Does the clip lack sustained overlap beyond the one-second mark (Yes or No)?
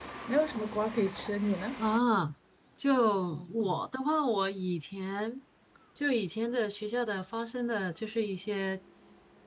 Yes